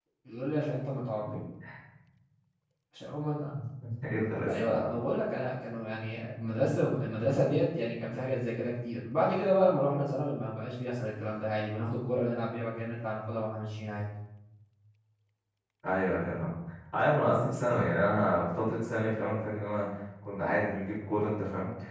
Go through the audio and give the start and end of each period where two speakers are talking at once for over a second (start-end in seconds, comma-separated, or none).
none